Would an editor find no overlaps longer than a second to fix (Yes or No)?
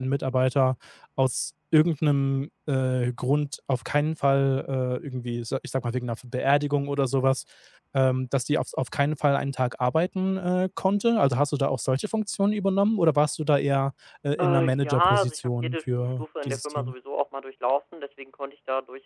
No